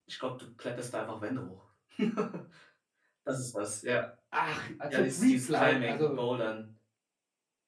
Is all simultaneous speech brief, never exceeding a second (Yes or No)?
No